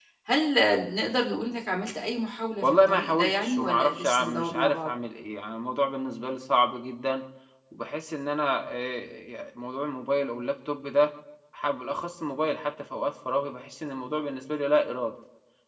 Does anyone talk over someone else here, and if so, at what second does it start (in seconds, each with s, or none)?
2.6 s